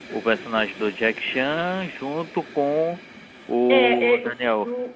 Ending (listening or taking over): taking over